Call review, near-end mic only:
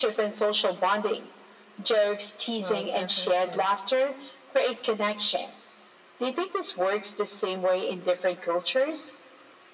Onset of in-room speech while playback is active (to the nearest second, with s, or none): 3 s